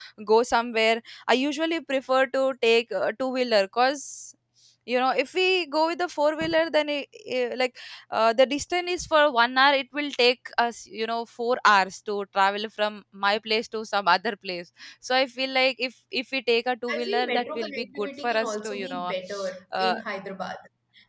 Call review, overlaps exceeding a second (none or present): present